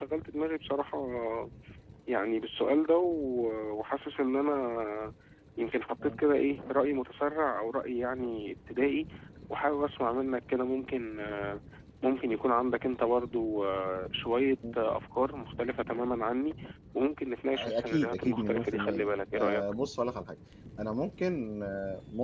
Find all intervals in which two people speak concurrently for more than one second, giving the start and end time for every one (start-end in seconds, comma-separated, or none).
17.5-19.6